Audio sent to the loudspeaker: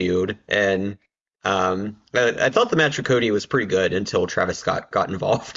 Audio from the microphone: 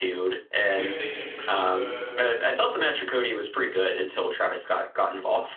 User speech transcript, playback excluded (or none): I guess Damian Priest is a